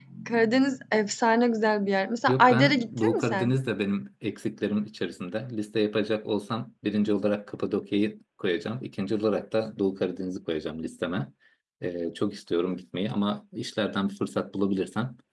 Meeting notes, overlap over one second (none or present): present